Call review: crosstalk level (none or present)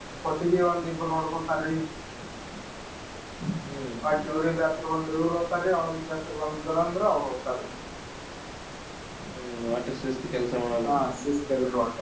none